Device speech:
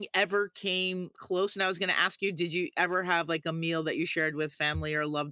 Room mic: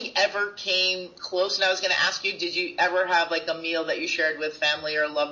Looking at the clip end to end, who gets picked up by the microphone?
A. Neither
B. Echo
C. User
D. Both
B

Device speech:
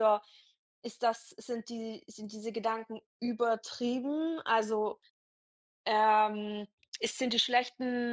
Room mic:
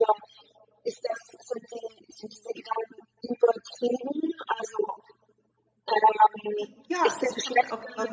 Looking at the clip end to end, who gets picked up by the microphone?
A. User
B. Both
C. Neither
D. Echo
B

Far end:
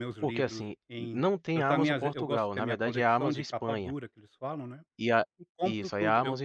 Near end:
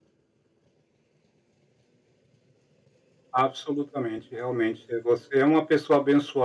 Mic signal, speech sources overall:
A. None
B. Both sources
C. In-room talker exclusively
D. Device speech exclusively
C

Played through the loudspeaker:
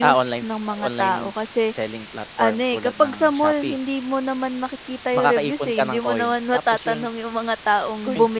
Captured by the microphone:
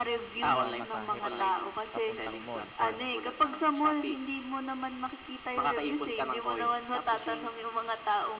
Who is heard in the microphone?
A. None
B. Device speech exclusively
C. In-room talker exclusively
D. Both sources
D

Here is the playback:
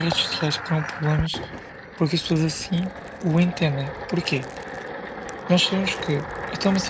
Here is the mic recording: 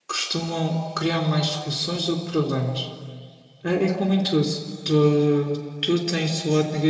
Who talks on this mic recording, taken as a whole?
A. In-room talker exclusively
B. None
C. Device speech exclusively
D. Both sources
A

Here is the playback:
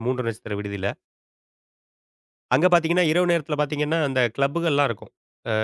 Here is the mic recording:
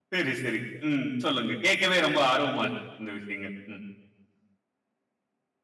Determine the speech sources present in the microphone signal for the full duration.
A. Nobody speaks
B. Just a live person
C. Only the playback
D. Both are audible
B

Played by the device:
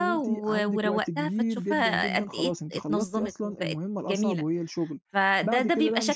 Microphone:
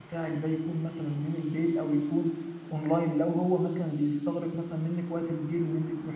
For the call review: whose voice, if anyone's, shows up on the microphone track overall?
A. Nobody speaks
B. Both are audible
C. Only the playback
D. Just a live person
D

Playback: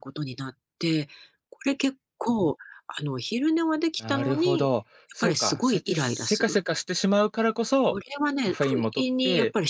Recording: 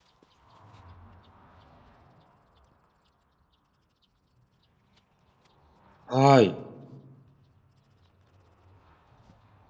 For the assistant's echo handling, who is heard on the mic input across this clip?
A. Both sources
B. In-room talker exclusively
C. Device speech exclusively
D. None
B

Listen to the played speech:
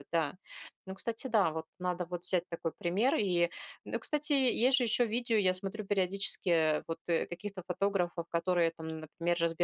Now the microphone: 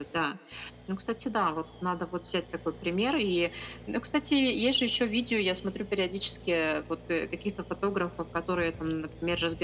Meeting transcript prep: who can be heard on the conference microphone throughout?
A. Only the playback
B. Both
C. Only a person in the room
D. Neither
A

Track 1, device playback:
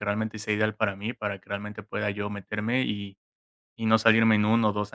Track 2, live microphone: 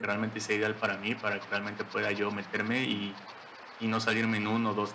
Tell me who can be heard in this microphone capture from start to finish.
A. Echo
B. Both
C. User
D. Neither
A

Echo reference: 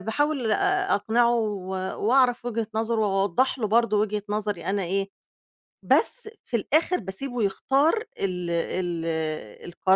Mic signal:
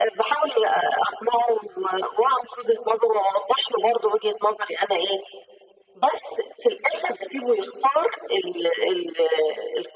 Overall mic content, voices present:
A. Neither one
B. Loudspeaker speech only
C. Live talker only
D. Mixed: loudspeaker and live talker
B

